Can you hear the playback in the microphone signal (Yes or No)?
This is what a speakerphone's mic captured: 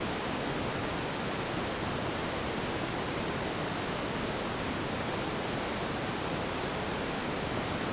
No